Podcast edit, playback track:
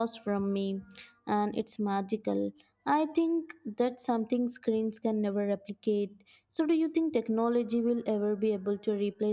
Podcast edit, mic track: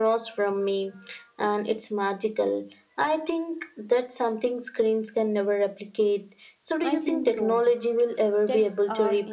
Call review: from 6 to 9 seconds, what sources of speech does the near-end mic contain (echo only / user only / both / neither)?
both